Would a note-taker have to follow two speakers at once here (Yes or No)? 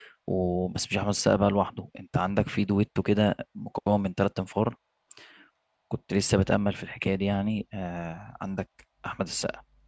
No